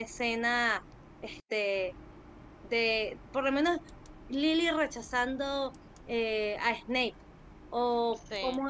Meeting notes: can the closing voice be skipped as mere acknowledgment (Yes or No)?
Yes